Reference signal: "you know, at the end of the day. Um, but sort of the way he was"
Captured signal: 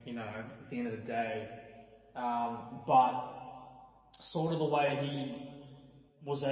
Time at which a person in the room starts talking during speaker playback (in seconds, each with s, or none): none